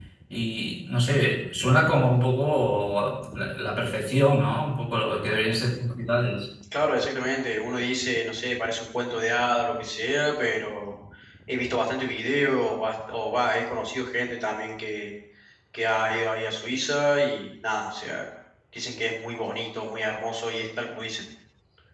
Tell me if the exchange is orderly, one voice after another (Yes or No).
Yes